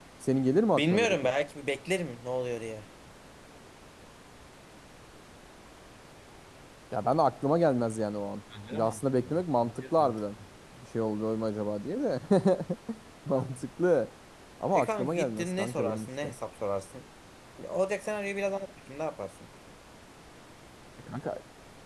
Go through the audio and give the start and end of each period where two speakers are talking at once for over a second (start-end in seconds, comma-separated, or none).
8.7-10.1, 14.7-16.3